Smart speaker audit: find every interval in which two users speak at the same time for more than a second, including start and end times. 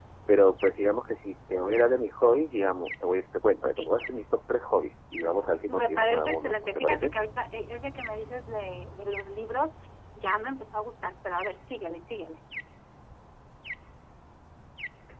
5.7-7.1

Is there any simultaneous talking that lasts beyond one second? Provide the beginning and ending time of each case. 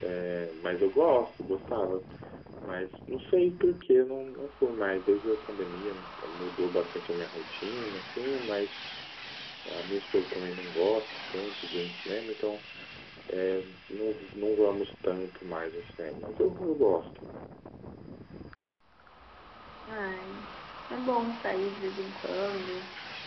none

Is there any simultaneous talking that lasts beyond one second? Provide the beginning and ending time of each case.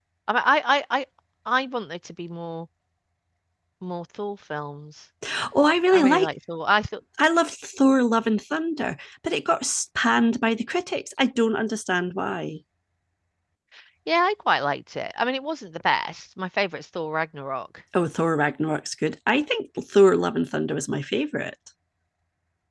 none

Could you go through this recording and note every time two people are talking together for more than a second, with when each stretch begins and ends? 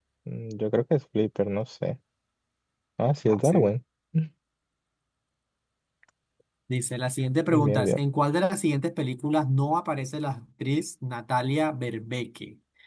none

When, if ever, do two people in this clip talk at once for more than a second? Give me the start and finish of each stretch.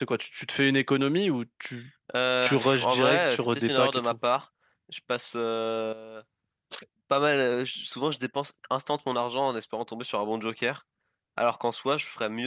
2.4-4.1

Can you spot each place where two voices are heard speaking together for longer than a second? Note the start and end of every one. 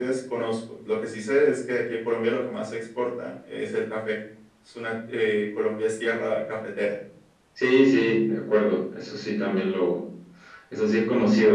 none

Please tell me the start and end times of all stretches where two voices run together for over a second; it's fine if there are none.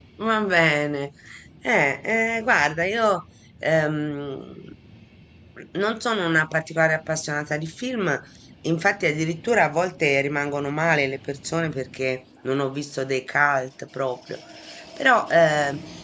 none

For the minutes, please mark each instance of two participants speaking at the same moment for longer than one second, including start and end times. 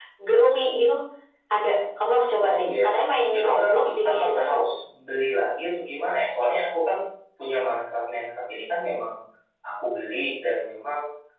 3.3-4.6

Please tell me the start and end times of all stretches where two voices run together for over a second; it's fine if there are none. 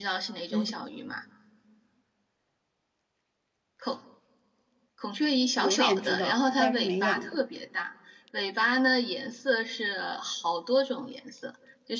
5.6-7.4

